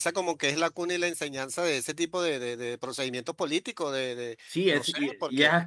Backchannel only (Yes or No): No